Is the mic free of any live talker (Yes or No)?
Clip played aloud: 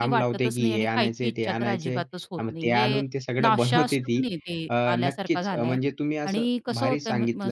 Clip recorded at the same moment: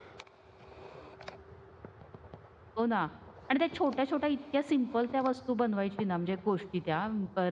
No